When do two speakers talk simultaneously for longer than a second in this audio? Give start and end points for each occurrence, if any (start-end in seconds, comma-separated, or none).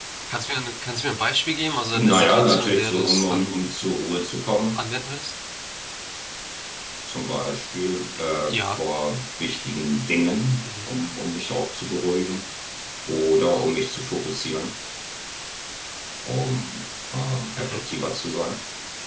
1.9-3.5